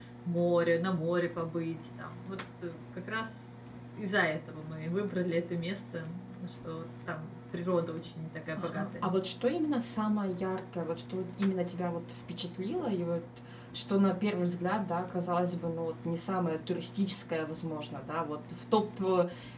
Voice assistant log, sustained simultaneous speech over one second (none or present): none